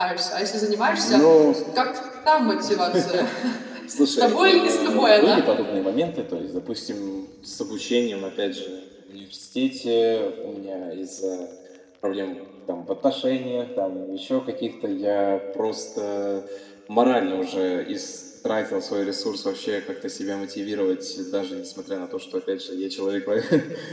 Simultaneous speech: Yes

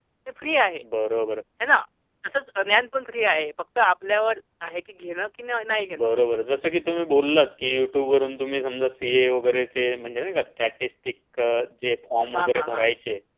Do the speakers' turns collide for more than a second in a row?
No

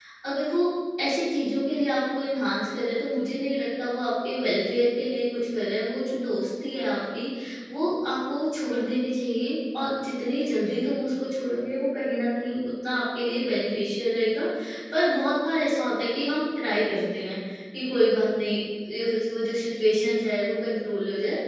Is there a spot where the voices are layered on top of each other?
No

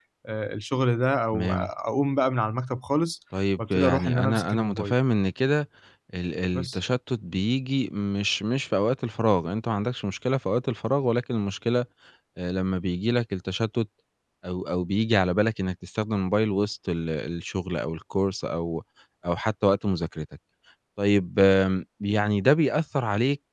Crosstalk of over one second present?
Yes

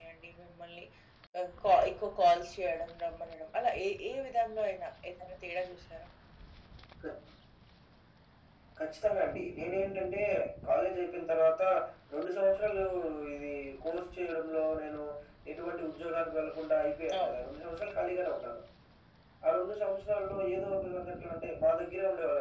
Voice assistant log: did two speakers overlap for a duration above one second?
No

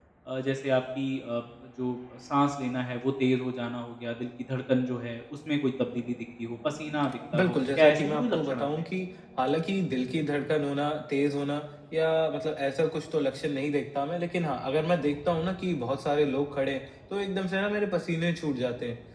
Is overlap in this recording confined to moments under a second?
No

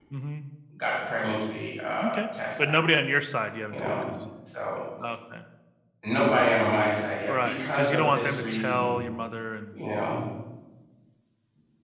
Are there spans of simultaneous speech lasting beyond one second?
Yes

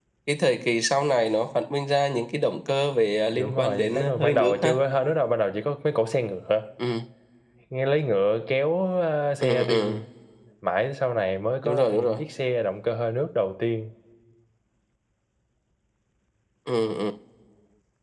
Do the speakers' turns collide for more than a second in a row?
Yes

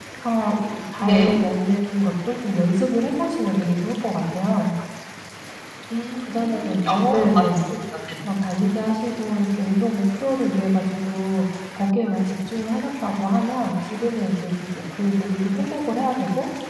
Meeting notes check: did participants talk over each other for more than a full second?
Yes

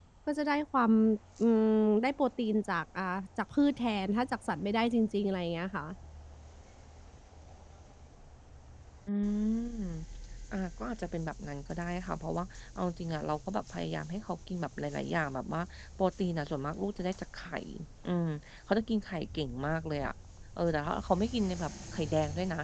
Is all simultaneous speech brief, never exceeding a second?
Yes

